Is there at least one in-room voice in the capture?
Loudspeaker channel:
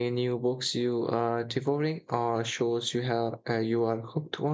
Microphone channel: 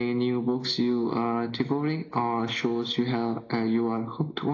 No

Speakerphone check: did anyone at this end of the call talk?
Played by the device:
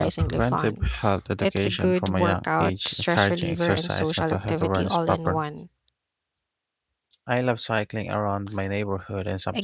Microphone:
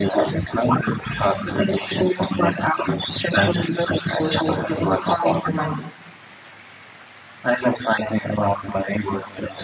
No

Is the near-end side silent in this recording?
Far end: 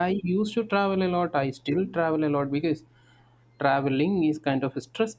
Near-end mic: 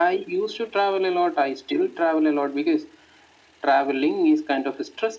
Yes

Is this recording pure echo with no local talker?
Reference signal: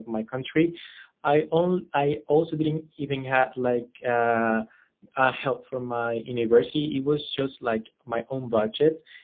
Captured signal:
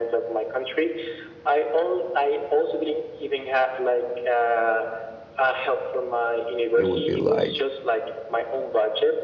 No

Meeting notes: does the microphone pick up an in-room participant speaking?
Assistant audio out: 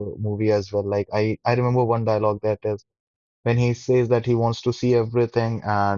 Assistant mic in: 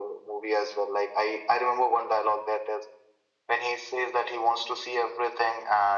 No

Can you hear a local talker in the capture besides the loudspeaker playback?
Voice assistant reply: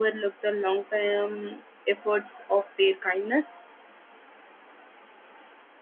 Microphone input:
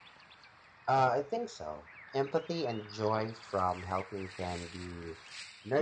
Yes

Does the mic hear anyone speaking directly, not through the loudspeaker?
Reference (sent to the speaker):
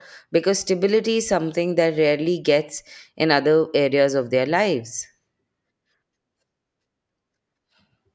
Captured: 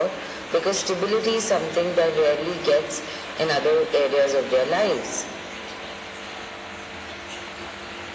No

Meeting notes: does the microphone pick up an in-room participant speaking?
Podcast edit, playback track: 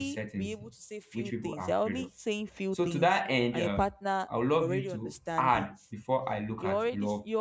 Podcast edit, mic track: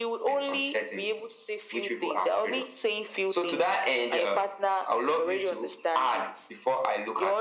No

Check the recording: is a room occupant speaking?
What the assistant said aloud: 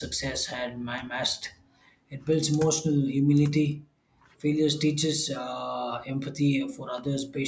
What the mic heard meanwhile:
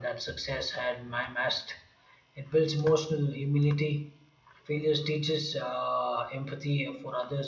No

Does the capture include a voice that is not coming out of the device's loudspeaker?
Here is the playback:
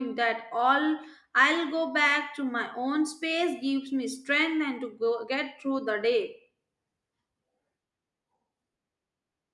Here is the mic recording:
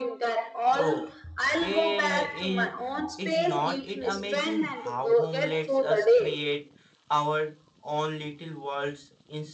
Yes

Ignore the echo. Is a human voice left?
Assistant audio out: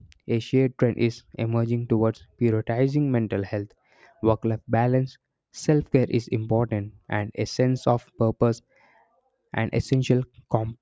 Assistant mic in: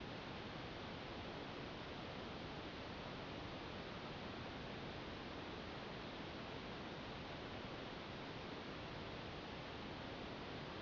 No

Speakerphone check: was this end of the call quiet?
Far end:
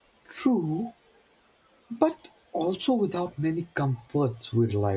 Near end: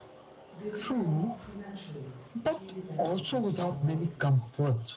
No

